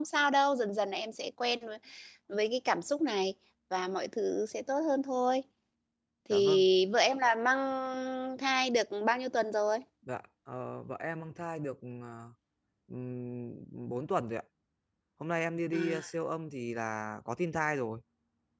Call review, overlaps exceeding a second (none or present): none